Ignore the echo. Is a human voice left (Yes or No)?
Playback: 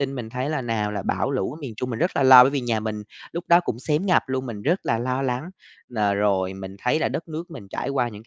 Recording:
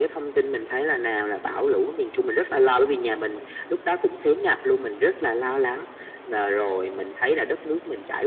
No